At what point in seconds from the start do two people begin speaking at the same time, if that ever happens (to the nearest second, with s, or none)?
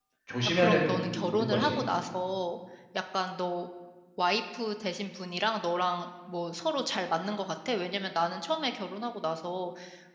1 s